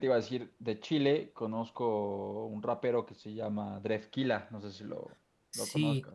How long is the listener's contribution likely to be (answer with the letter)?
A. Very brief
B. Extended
B